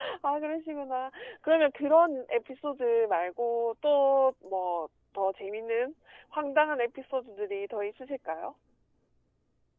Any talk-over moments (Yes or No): No